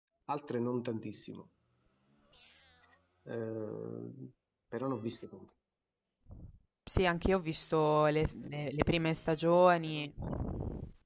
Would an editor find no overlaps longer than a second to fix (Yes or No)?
Yes